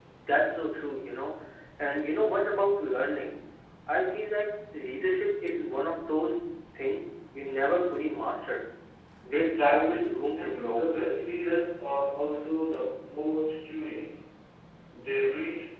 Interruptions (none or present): present